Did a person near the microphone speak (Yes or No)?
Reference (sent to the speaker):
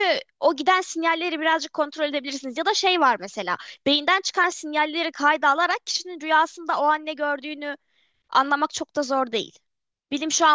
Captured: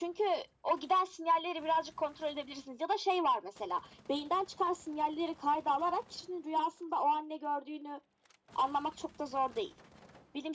No